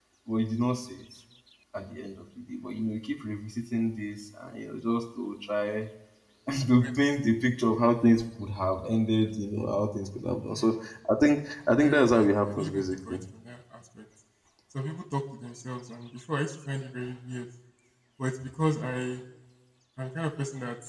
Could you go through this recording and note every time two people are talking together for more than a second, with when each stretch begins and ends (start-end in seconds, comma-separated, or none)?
11.8-13.2